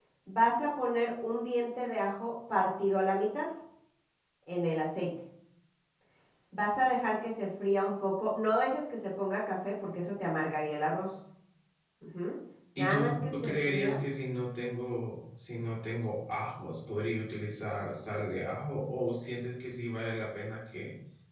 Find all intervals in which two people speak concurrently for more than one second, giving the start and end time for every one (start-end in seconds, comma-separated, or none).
12.8-14.0